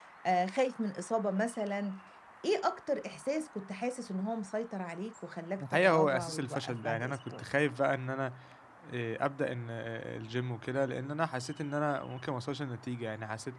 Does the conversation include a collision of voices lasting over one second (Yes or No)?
Yes